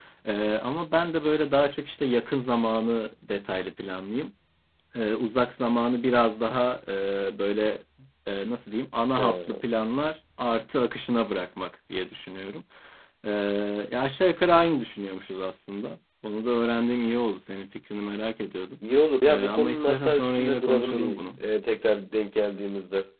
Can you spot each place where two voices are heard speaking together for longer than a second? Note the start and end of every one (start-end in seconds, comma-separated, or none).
19.3-21.4